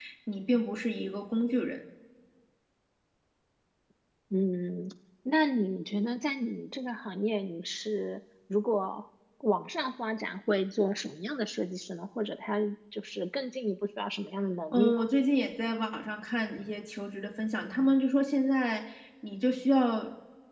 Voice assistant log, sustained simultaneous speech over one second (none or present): none